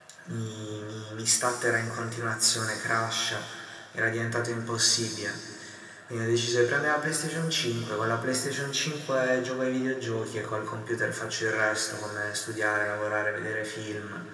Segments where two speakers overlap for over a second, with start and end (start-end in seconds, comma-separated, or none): none